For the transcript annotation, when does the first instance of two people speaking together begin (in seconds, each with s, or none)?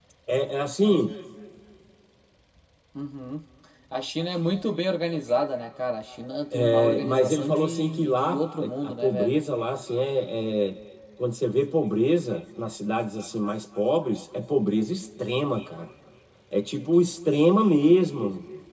6.5 s